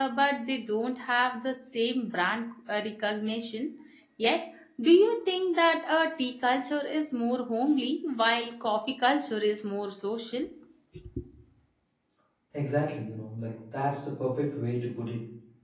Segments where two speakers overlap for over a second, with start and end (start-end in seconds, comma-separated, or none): none